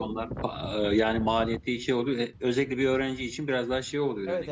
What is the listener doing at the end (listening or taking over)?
taking over